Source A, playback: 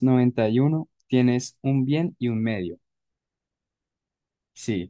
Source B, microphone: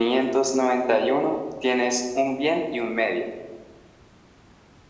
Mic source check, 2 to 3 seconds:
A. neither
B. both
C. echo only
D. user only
C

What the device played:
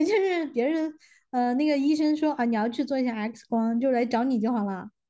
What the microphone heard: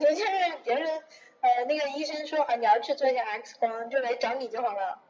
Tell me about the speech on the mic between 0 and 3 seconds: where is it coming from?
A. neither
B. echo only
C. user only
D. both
B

